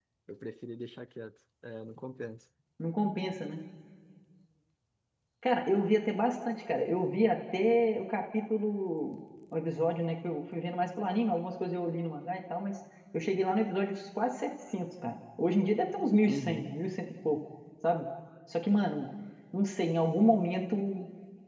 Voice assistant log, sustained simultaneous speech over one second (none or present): none